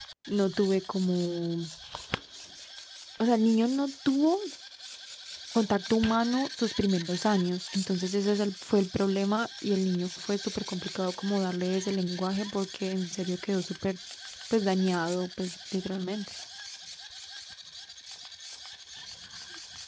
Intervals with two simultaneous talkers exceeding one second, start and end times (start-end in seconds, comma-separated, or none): none